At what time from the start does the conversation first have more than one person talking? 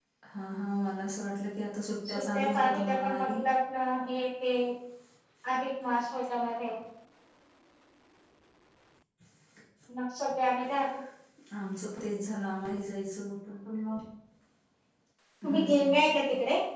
2 s

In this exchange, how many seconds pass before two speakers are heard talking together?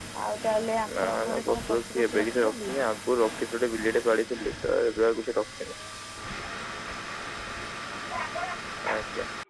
1 s

